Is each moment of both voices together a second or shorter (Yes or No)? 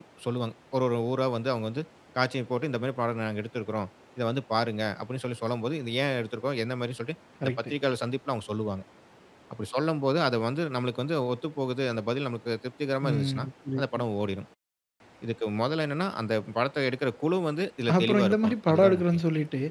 No